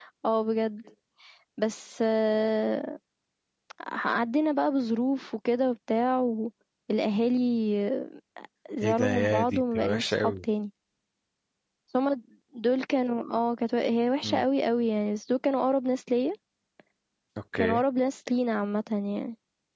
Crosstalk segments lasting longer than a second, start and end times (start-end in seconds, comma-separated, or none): 8.8-10.4